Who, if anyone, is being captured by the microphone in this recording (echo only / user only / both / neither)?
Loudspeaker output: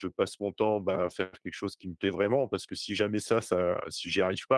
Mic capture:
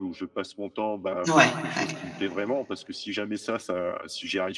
both